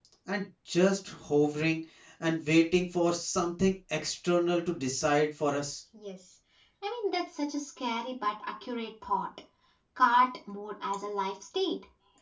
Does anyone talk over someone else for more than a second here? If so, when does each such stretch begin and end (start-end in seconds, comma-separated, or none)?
none